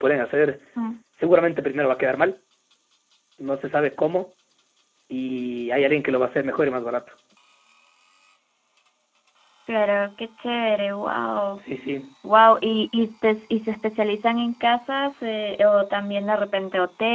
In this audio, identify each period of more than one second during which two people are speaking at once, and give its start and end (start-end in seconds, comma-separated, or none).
none